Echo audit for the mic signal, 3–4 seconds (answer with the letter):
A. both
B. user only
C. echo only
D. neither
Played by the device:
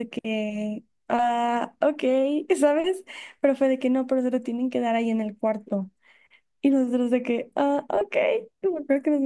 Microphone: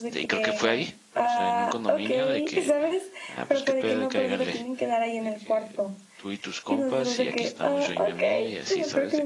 A